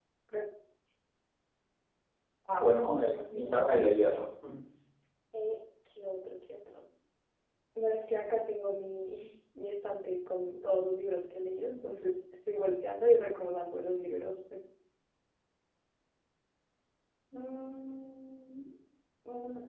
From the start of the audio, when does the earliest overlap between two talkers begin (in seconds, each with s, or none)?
2.9 s